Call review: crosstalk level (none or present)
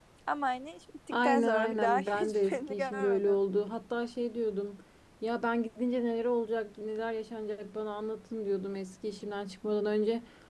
present